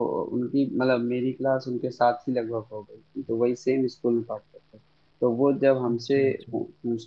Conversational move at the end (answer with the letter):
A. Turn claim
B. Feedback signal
B